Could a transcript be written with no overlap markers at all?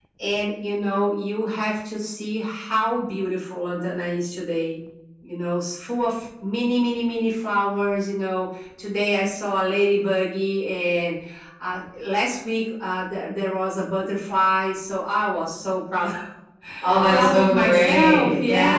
No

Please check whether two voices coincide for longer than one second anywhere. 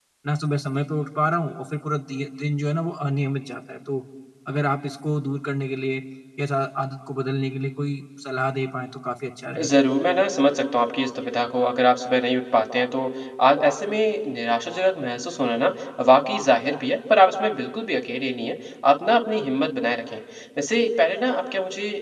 No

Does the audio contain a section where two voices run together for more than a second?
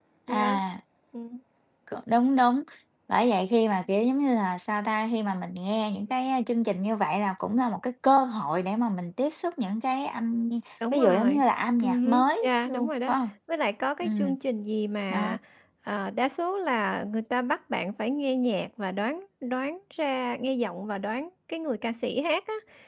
Yes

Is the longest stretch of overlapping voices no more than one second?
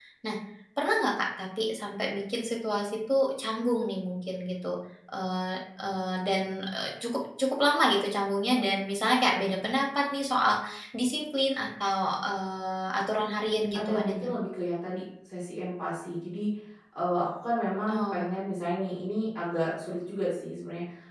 Yes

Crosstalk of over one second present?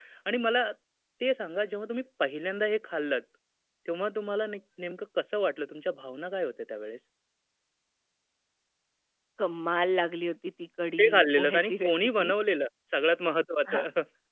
Yes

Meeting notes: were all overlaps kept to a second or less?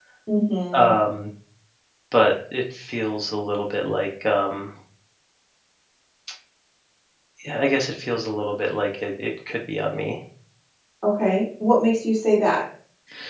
Yes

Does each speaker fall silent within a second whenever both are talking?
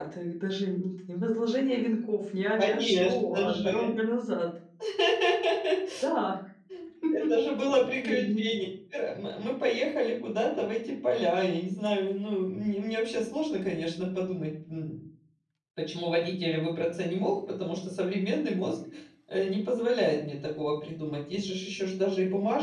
No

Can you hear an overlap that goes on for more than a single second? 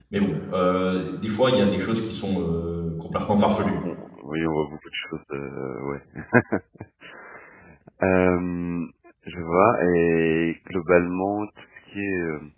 No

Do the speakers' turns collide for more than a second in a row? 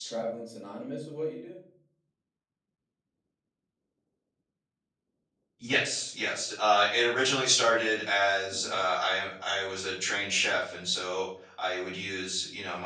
No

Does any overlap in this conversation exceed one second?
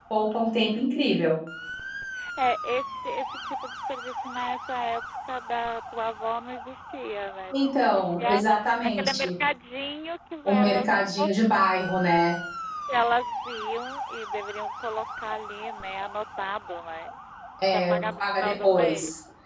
Yes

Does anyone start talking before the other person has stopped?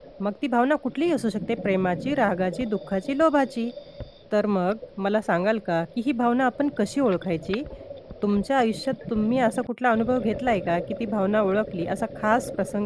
No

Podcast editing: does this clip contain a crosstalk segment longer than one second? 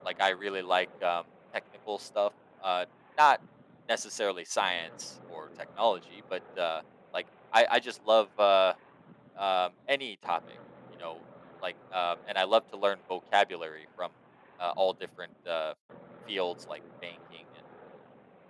No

